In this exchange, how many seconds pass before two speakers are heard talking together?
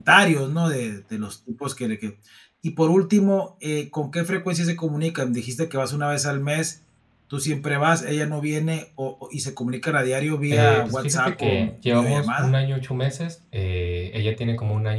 10.5 s

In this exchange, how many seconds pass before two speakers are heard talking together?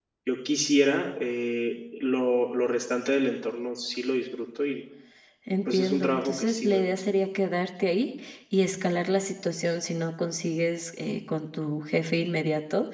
5.7 s

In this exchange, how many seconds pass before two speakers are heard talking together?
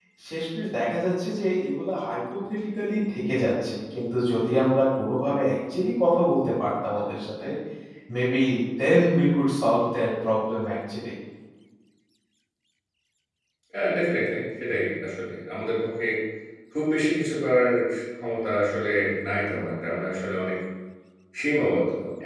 none

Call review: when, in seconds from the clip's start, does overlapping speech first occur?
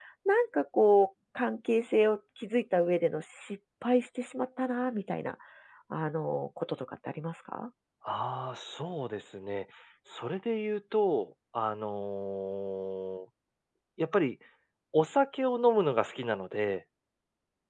none

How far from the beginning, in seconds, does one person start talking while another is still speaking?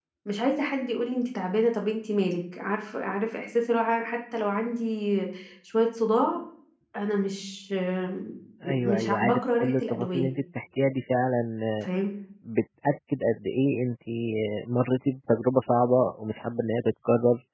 8.6 s

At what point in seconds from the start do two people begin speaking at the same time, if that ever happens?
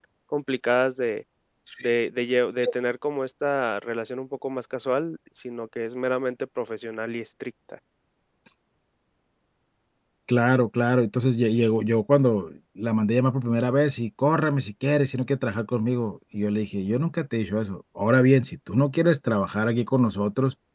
none

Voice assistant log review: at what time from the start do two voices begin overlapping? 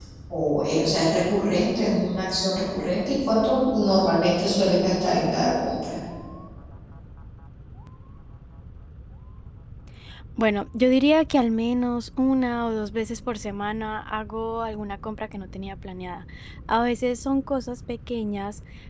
none

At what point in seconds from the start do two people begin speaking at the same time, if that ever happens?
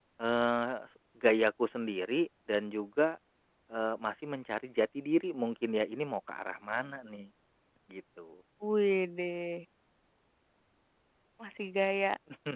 none

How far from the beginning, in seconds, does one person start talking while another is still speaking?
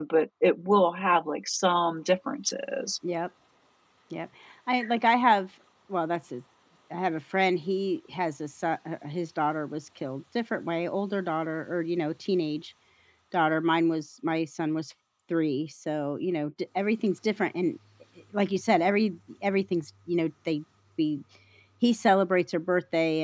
none

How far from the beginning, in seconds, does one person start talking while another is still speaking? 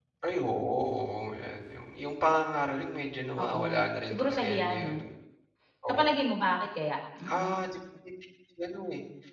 3.4 s

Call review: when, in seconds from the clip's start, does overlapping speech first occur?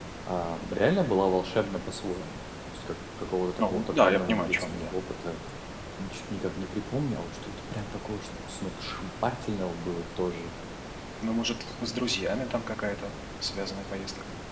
3.6 s

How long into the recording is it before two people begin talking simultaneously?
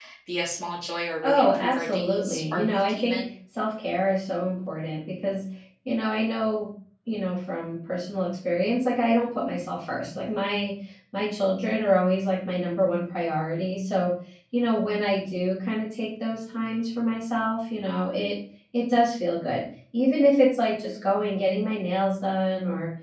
1.2 s

